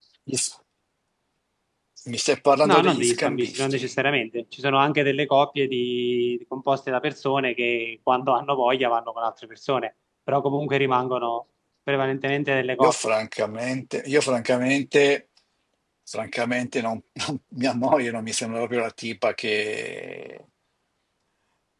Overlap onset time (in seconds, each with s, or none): 2.6 s